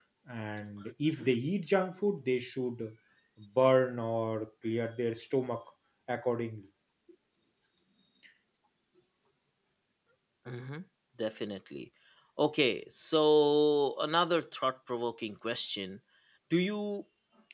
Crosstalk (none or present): none